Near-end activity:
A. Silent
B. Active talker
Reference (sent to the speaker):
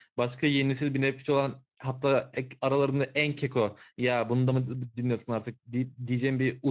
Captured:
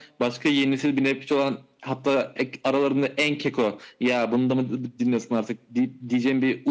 A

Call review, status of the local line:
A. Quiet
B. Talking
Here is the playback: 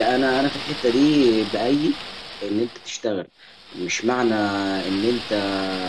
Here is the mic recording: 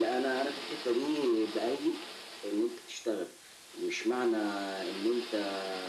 A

